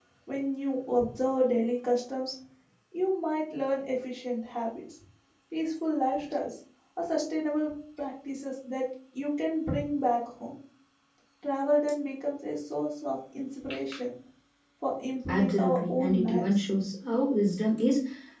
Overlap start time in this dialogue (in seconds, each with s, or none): 15.3 s